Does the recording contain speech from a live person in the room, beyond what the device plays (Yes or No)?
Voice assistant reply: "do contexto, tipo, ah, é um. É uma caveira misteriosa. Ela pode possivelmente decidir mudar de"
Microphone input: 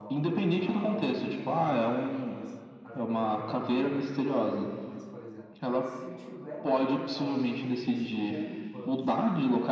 Yes